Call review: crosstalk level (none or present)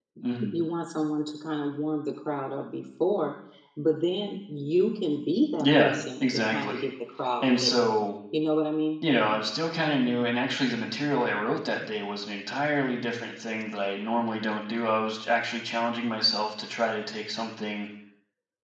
present